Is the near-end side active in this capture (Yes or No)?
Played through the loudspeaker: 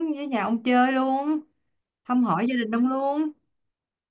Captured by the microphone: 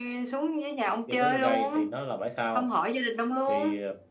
Yes